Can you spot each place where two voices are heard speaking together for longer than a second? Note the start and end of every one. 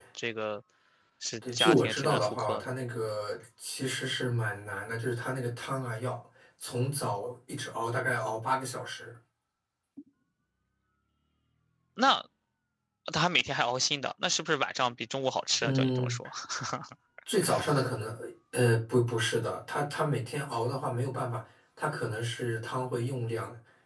1.4-2.7

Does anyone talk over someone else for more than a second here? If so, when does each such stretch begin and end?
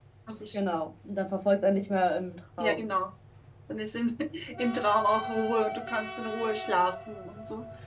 none

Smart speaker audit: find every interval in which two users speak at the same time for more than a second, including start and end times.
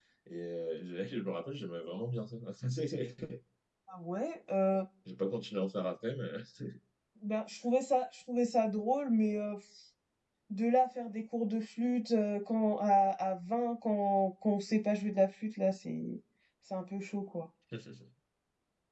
none

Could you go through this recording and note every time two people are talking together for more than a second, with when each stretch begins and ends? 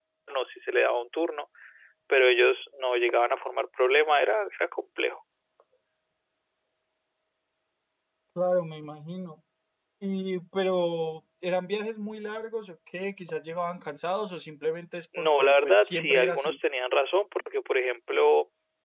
15.2-16.6

